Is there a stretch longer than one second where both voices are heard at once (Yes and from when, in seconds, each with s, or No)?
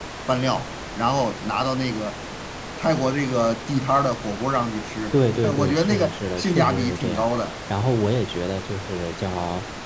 Yes, from 5.1 s